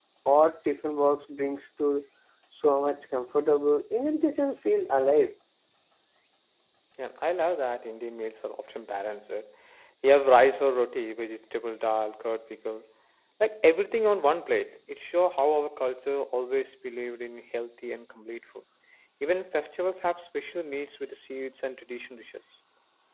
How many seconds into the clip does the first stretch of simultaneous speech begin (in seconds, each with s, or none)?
none